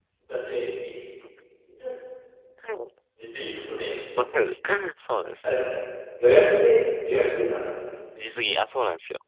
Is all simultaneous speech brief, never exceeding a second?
Yes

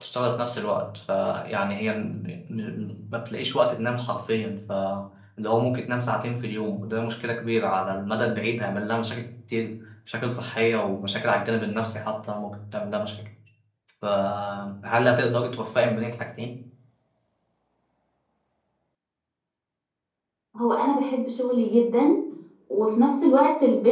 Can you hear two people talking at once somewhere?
No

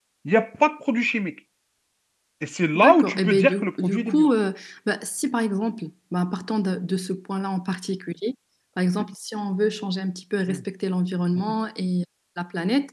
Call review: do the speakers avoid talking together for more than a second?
No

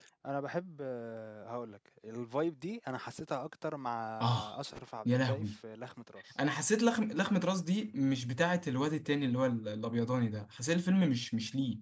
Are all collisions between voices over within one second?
Yes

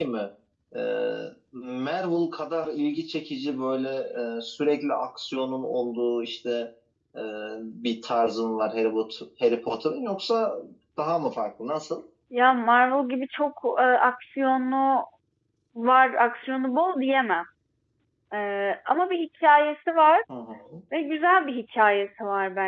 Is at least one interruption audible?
No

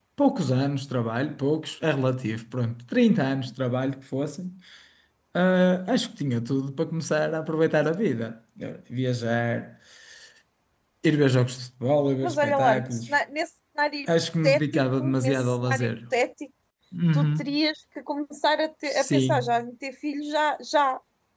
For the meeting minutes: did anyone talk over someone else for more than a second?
Yes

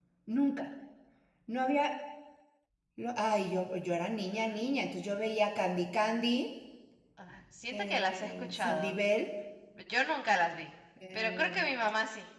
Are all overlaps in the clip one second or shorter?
No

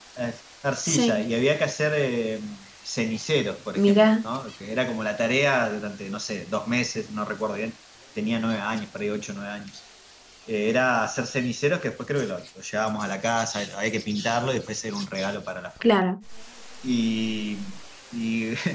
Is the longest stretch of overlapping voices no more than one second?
Yes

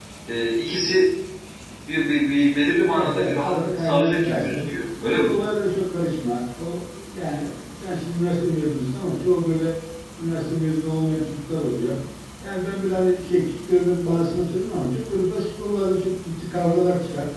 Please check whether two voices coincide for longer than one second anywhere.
Yes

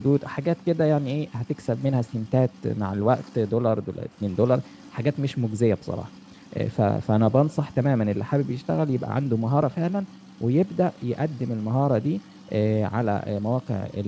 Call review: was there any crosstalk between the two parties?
No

